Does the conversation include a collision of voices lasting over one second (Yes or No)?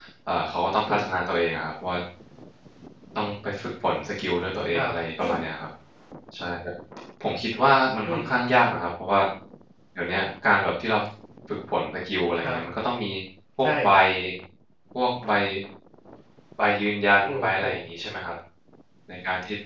No